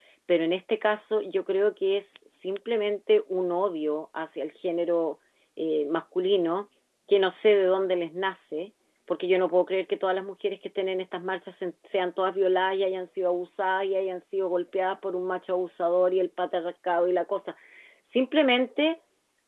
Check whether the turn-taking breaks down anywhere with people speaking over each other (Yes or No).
No